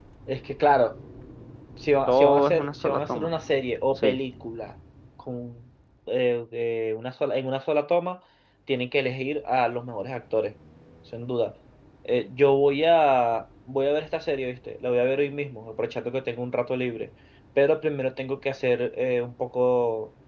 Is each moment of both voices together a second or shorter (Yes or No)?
No